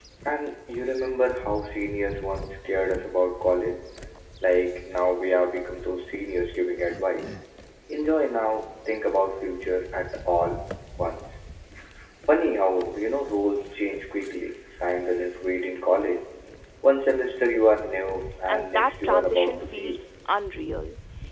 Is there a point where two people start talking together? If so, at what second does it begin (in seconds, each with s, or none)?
18.5 s